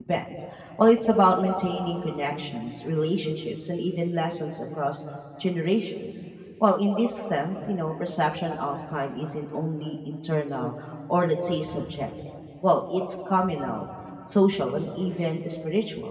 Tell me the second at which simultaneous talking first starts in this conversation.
none

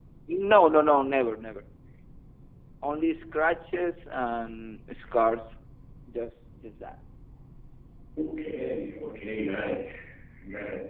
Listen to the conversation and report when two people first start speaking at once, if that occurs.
none

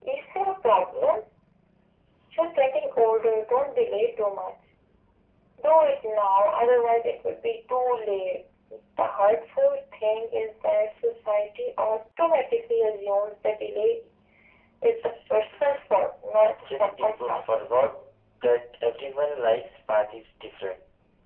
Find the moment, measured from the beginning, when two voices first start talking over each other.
16 s

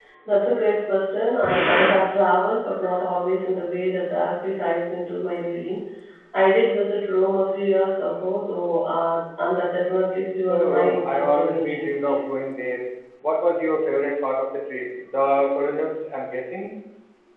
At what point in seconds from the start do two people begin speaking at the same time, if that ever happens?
10 s

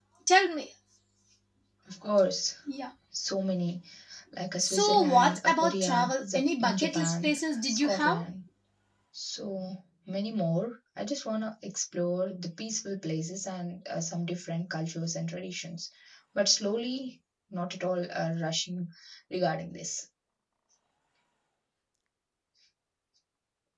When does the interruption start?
5 s

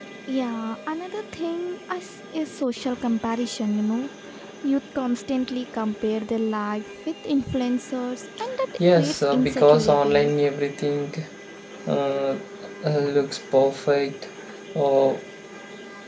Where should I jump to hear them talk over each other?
9 s

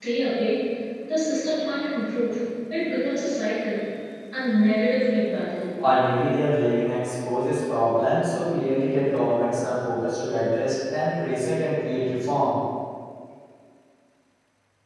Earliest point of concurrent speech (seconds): none

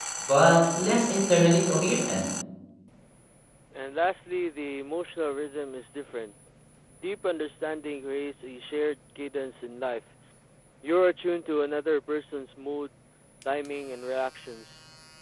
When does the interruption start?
none

